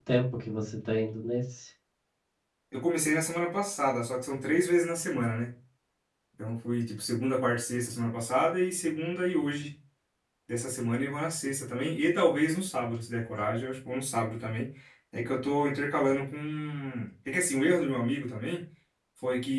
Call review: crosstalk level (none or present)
none